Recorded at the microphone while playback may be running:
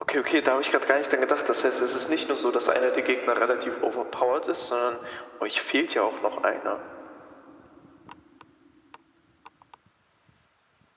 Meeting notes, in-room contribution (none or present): none